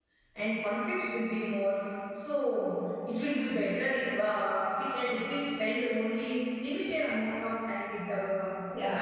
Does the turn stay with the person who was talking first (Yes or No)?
No